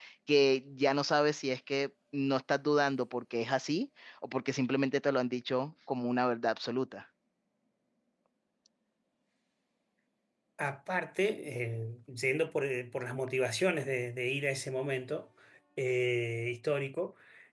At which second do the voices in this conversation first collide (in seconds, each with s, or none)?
none